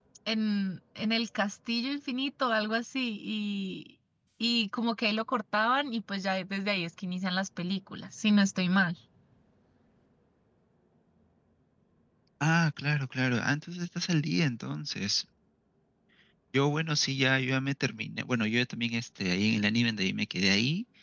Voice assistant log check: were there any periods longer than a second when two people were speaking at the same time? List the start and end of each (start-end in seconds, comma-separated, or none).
none